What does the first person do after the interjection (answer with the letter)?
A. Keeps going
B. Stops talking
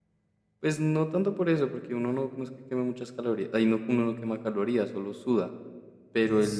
A